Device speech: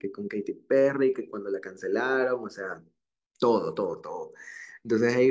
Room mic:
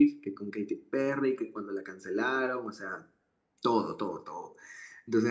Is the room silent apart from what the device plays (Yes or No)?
Yes